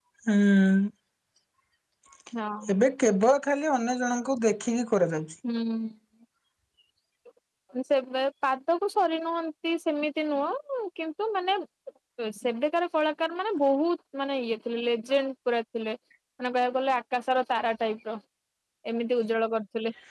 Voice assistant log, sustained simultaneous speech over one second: none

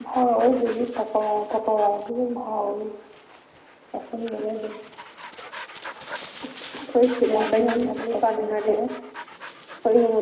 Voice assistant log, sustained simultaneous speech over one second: present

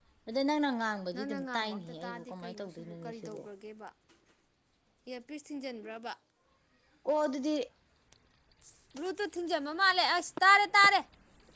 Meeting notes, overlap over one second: present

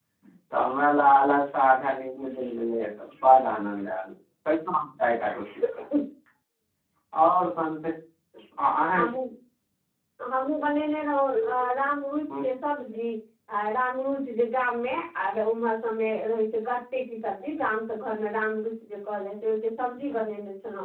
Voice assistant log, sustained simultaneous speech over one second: none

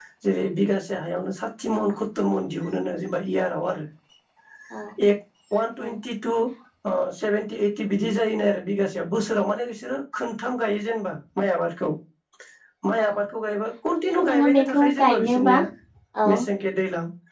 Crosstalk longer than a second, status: present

